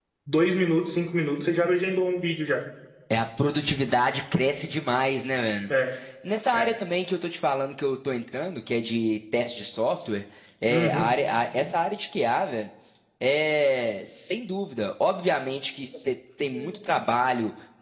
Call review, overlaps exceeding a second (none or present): none